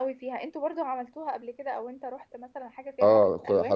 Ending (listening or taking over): taking over